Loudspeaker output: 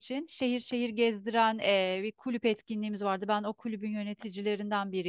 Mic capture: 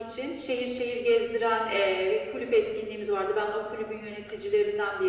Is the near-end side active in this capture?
No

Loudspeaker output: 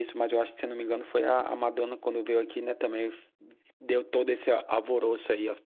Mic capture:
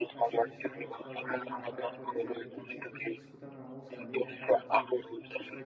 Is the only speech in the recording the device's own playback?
No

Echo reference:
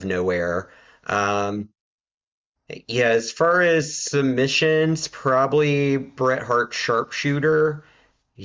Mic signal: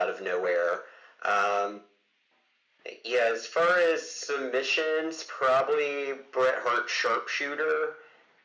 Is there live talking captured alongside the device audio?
No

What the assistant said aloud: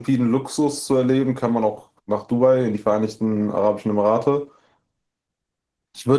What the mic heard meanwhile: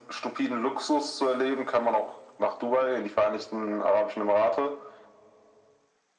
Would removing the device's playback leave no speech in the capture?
Yes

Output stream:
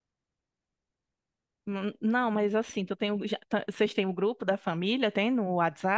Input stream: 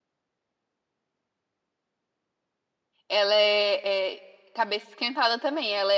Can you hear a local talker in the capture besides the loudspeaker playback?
Yes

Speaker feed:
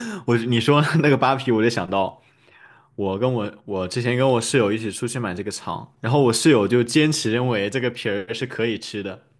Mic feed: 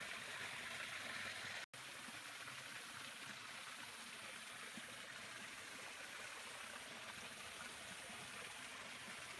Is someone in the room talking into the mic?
No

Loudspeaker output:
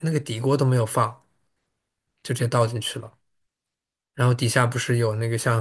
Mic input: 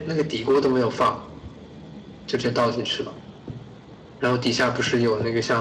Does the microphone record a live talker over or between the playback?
No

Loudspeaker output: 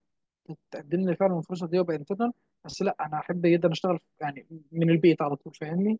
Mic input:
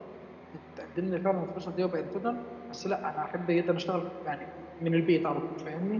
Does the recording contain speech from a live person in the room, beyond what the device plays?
No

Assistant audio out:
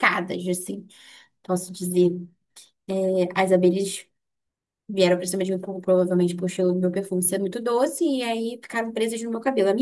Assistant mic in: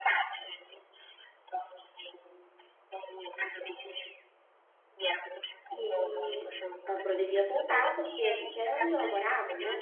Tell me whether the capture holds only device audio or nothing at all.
No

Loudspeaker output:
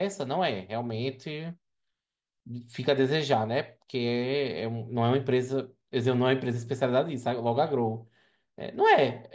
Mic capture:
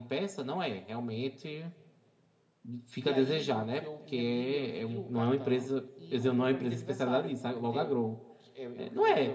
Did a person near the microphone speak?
Yes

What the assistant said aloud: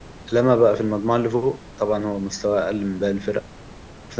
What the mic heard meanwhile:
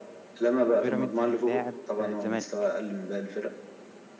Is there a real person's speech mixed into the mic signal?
Yes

